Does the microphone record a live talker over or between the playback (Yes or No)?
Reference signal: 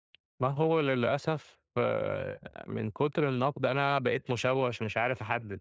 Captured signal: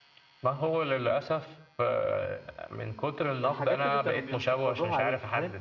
Yes